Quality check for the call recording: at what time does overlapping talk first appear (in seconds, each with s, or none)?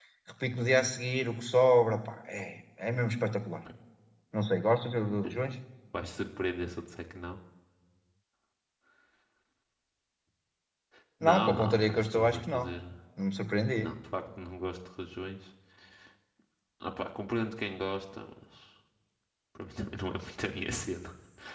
11.2 s